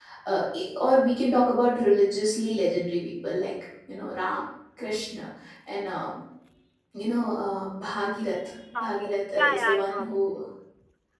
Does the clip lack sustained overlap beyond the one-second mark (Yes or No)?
No